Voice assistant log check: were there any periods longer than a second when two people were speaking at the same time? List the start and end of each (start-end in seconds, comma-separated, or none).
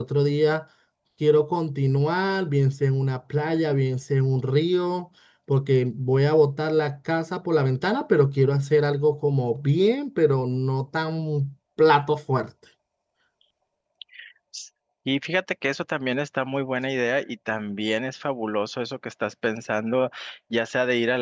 none